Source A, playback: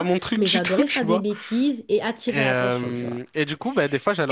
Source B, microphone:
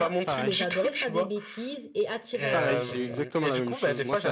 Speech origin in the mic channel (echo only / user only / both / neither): both